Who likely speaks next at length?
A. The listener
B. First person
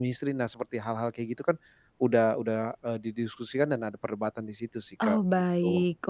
A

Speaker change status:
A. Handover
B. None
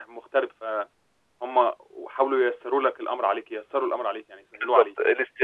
A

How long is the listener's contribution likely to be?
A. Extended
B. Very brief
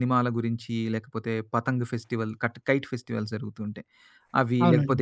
B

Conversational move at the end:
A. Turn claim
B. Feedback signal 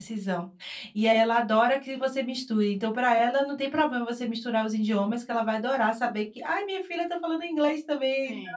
A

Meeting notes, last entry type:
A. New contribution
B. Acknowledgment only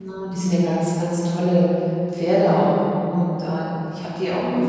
B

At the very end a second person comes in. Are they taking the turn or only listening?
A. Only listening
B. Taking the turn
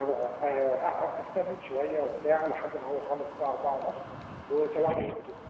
A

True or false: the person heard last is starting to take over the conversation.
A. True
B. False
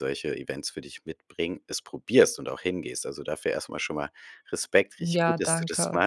B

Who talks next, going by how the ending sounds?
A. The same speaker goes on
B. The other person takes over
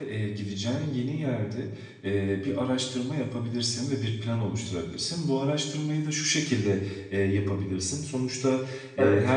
A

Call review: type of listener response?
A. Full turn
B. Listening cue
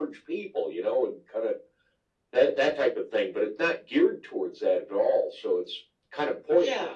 A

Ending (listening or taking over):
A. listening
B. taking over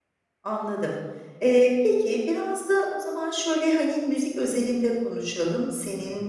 A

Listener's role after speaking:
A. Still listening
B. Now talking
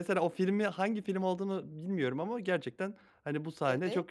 A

